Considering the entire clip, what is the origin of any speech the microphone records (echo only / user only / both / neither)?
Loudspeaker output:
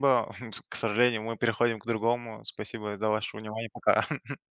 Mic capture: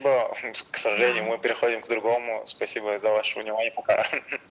both